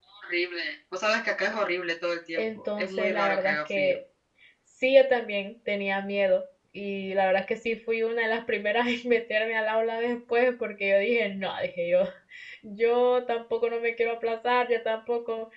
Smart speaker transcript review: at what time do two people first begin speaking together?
2.4 s

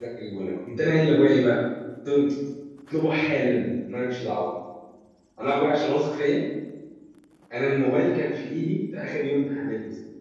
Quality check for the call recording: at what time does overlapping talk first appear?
none

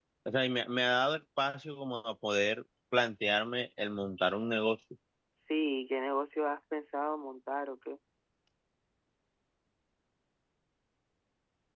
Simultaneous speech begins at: none

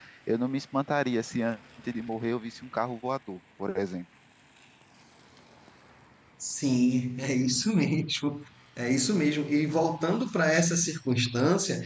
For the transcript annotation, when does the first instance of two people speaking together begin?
none

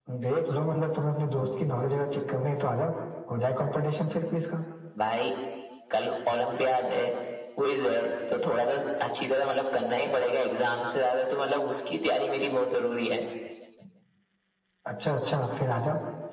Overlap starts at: none

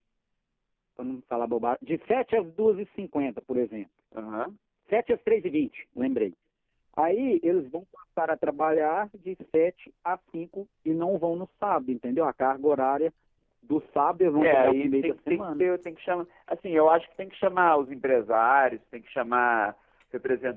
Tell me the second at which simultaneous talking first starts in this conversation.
14.4 s

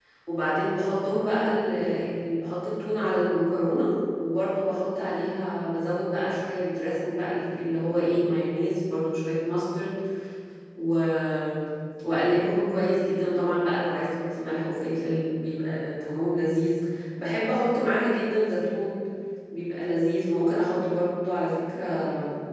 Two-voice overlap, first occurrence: none

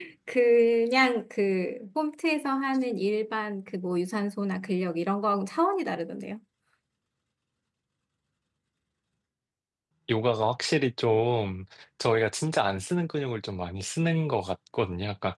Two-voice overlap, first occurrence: none

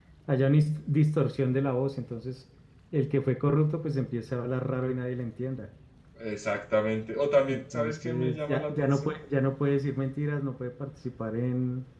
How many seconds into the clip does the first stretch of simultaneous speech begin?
7.5 s

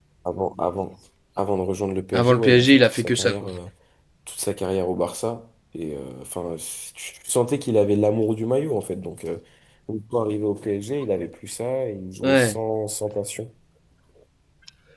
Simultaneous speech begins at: 2.1 s

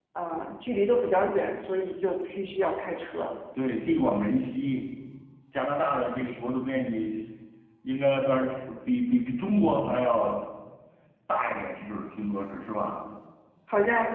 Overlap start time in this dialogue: none

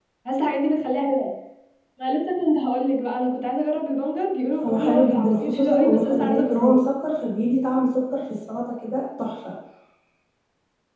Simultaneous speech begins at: 4.6 s

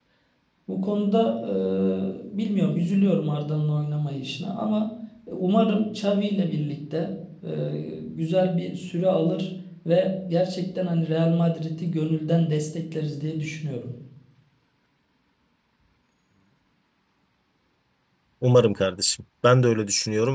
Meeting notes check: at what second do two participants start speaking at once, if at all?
none

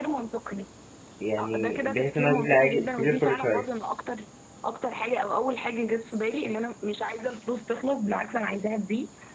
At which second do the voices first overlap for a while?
1.4 s

